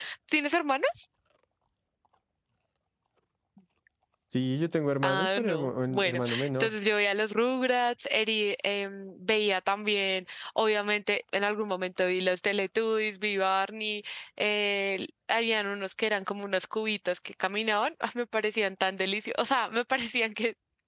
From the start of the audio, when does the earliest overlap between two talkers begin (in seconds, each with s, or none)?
5.1 s